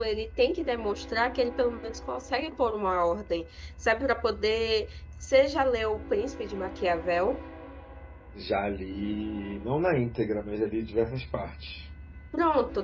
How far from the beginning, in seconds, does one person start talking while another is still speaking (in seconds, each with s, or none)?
none